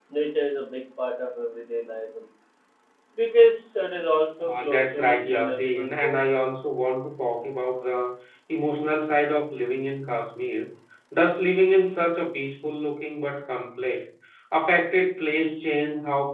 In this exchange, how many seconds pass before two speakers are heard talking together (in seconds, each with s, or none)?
4.4 s